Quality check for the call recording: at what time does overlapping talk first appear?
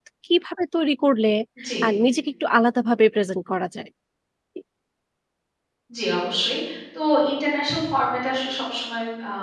none

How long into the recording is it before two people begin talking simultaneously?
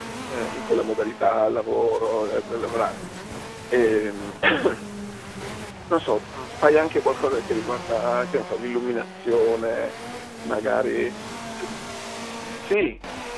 none

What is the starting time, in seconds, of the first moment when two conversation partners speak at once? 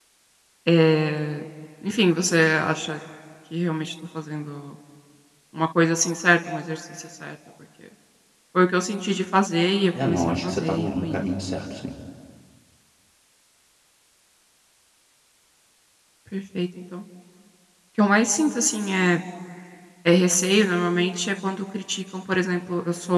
9.9 s

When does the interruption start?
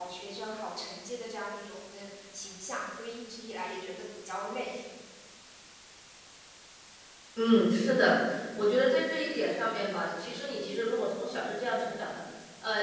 none

